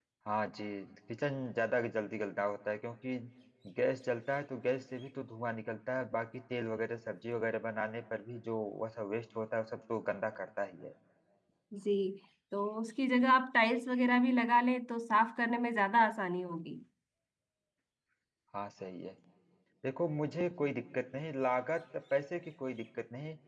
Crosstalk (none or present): none